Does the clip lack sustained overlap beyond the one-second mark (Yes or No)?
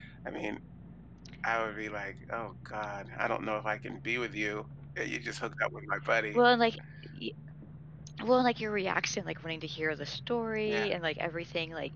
Yes